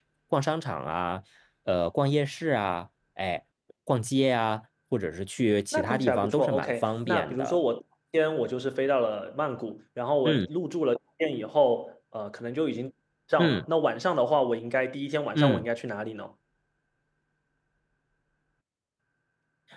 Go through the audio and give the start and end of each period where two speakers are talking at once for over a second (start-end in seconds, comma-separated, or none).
5.7-7.6